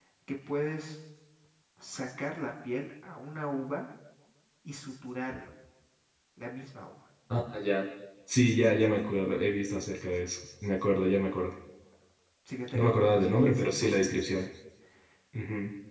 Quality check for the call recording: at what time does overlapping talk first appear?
12.7 s

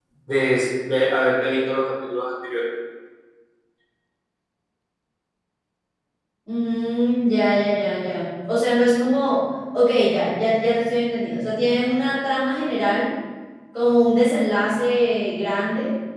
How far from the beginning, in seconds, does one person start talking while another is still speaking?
none

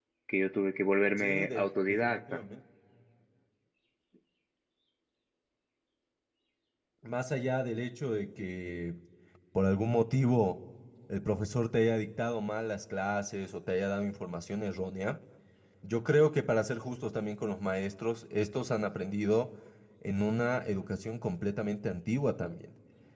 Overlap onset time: 1.2 s

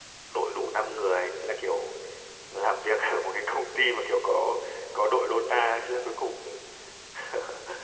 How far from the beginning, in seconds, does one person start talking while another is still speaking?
none

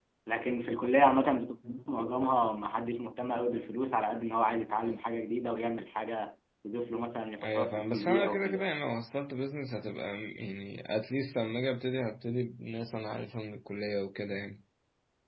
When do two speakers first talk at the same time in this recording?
7.4 s

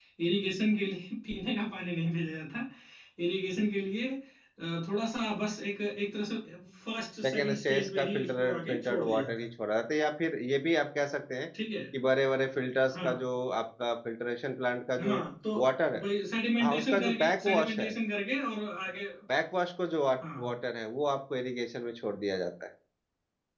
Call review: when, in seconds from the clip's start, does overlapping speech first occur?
7.2 s

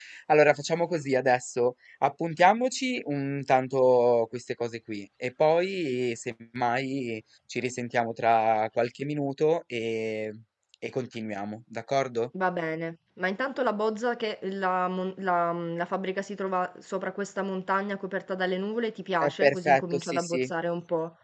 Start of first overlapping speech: 19.2 s

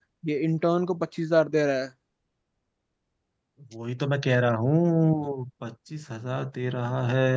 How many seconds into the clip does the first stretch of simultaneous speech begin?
none

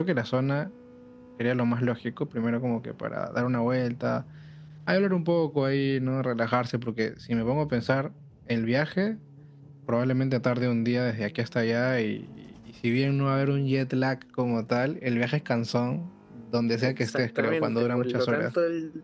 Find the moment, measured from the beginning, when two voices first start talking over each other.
16.8 s

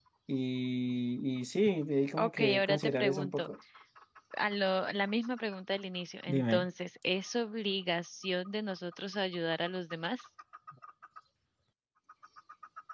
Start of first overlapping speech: 2.2 s

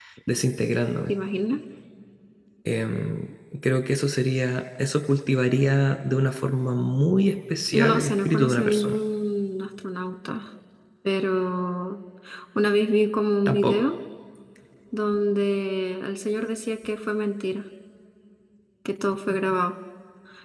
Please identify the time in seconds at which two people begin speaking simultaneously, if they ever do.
7.7 s

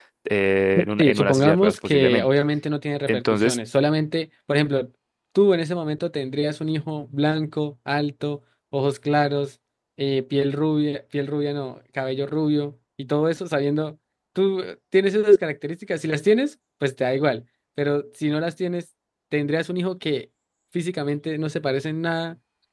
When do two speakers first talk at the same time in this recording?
0.8 s

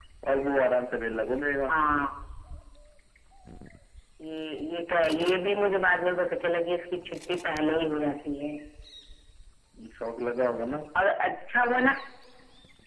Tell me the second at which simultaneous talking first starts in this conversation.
none

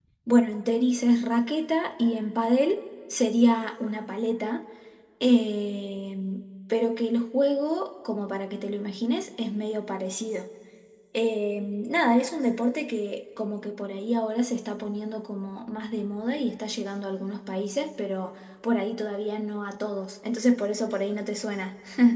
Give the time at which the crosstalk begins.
none

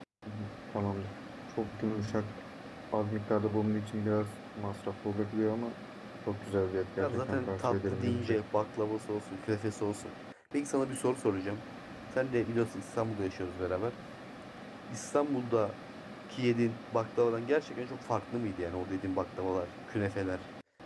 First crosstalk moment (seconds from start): 7.0 s

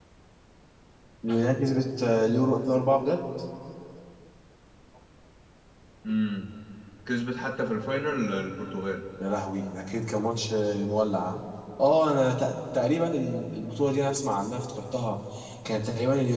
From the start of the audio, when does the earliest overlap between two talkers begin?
none

